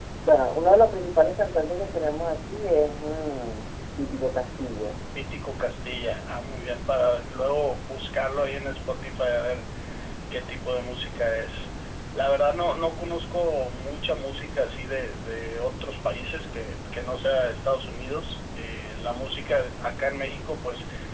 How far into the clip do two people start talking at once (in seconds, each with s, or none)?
none